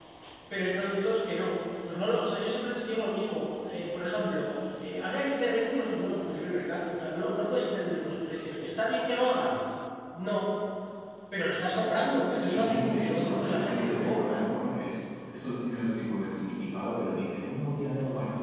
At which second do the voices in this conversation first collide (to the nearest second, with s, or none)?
12 s